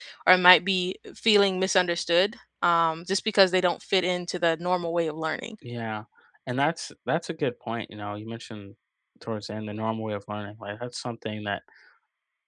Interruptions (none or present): none